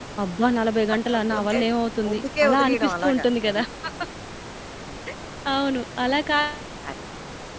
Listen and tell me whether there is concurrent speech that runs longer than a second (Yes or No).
Yes